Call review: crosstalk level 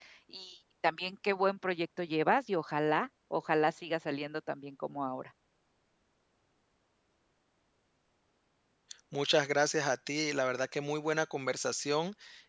none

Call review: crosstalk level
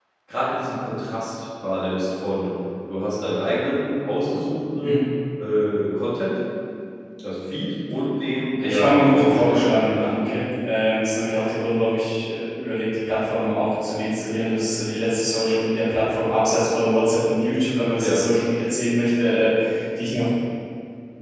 present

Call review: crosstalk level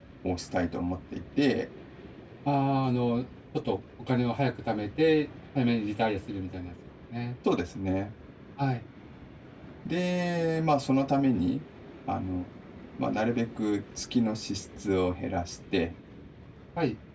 none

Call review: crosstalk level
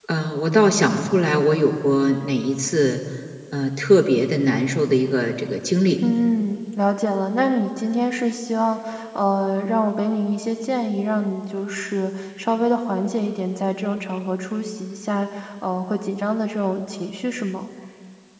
none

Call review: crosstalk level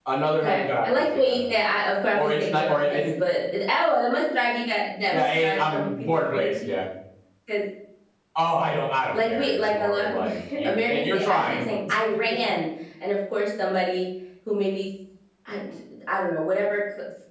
present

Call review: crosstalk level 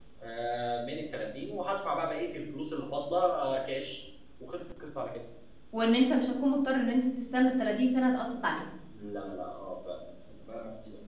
none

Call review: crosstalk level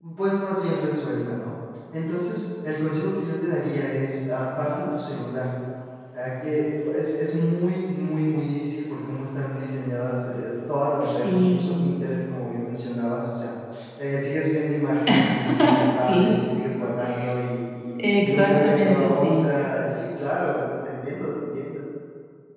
present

